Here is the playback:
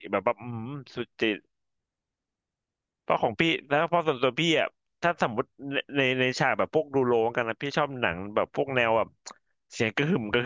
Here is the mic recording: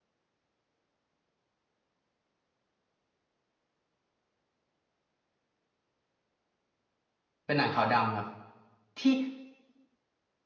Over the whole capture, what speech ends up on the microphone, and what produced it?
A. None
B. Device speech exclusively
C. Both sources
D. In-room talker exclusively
D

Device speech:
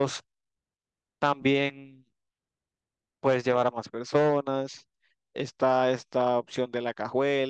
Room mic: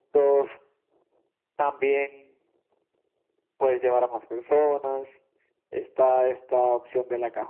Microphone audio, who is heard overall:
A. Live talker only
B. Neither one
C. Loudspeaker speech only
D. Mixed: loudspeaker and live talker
C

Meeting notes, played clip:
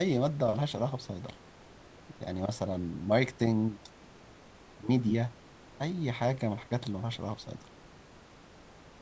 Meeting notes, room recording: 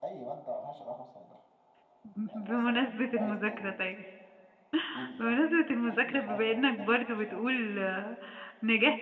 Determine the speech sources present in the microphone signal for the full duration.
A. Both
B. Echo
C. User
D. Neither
A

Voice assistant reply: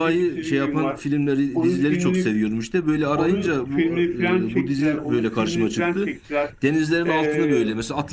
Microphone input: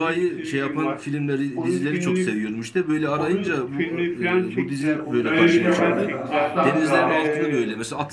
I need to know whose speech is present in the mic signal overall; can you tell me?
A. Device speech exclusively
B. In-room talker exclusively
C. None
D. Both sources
D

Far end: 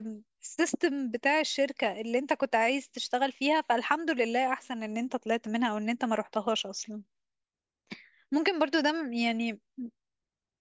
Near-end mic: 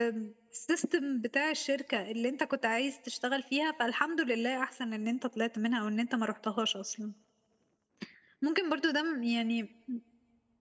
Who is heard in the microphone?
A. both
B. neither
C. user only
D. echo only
D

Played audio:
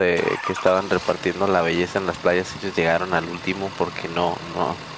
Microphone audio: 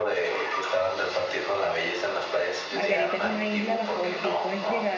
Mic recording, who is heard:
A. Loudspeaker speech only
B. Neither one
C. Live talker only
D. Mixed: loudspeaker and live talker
D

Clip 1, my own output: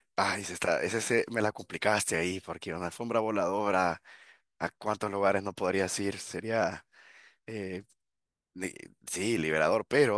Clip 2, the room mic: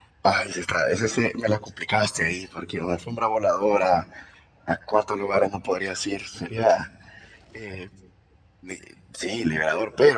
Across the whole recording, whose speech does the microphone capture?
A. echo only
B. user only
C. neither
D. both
A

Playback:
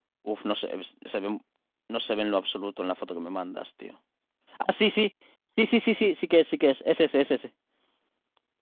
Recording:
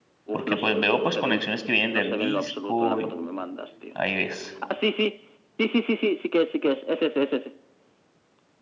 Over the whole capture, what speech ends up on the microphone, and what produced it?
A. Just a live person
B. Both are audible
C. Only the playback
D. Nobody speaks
B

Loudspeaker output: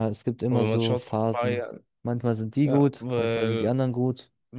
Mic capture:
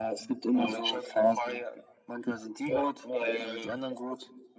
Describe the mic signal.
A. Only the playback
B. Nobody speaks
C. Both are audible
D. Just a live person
A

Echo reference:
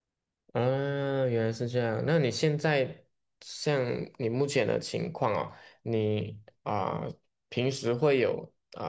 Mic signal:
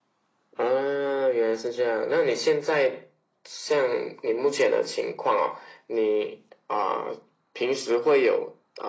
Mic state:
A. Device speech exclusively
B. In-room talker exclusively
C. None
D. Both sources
A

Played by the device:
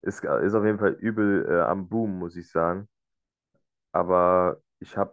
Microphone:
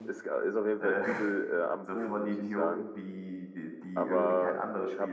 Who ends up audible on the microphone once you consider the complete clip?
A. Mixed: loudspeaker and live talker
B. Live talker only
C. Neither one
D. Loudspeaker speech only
A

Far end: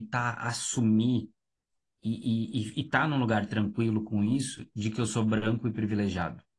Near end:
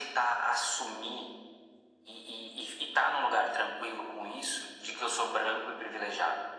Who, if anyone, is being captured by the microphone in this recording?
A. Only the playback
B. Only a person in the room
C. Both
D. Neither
A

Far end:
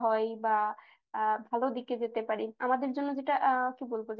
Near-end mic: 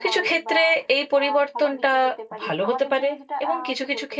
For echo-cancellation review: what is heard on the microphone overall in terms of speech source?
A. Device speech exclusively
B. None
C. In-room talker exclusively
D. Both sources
D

